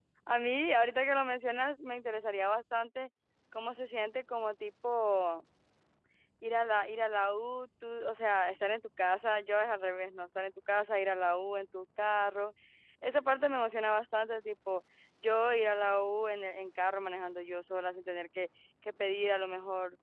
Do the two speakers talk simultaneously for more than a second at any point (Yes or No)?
No